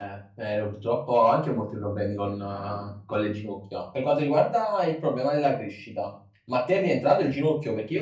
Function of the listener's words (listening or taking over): listening